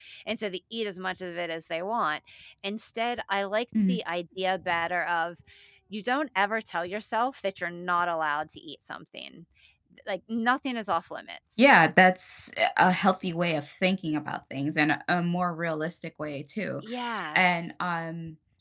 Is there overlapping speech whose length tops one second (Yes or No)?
No